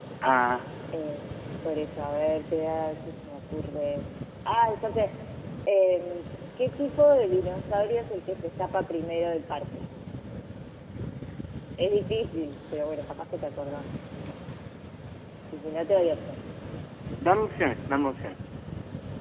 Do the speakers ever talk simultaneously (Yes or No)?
No